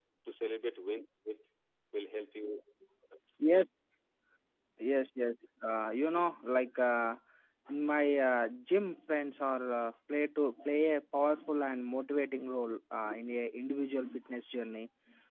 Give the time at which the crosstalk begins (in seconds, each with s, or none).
none